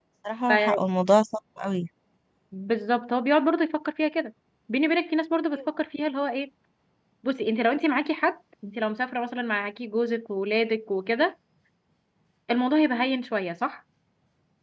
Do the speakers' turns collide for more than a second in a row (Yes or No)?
No